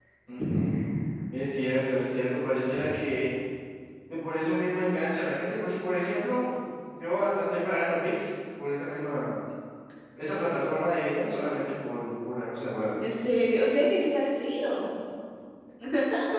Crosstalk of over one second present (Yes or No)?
No